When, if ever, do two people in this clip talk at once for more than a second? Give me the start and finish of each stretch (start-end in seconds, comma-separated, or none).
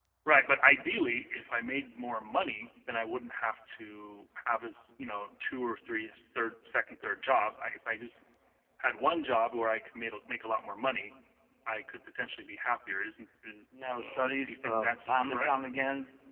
14.0-15.5